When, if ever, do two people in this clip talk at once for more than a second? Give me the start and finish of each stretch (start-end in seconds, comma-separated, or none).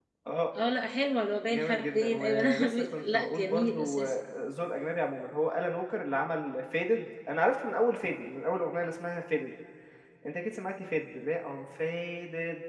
1.5-4.2